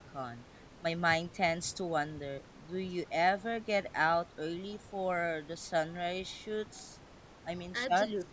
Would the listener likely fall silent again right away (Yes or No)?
No